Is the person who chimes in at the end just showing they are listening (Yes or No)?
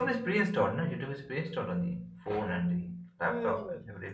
No